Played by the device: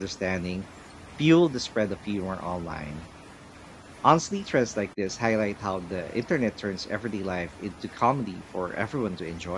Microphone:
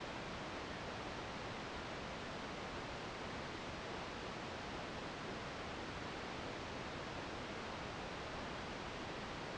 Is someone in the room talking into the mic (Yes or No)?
No